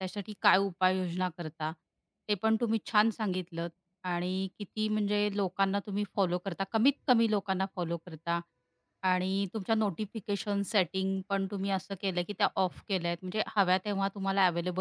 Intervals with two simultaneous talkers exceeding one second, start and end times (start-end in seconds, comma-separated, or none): none